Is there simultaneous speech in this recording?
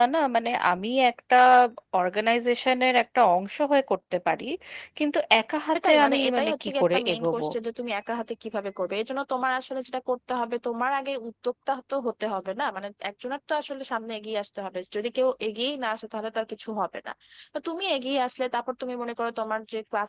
Yes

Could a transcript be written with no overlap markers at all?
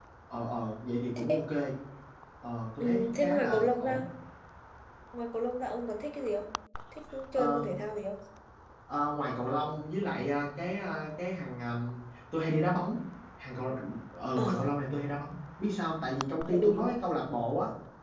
No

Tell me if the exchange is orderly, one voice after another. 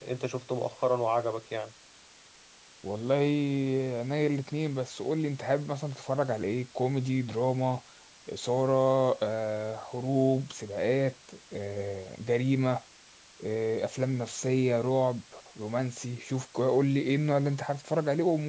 Yes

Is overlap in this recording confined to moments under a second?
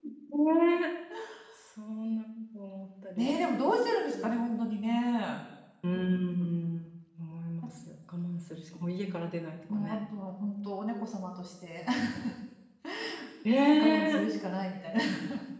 Yes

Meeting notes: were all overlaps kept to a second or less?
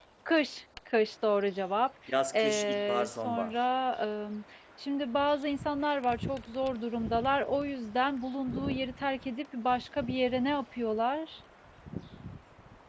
No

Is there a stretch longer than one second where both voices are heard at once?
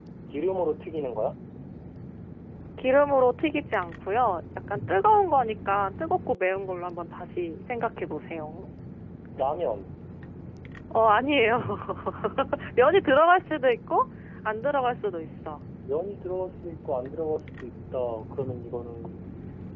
No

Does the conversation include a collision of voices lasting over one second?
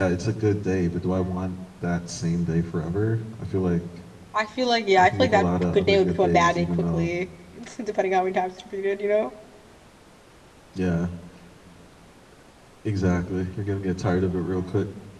Yes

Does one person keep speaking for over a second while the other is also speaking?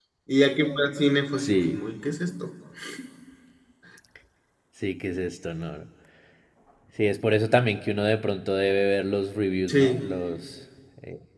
No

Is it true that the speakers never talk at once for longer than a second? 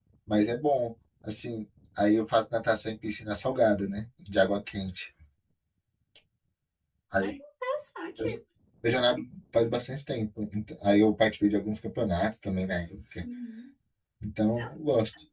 Yes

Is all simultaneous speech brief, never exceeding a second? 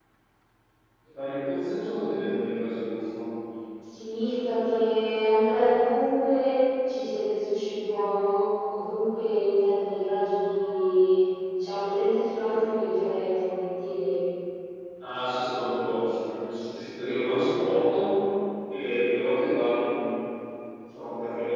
Yes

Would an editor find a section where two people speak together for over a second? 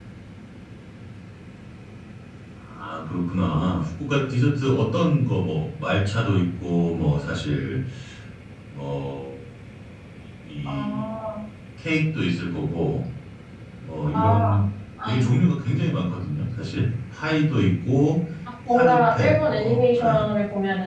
Yes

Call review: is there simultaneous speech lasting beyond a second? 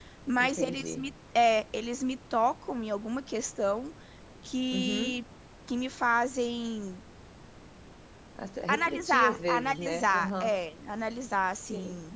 Yes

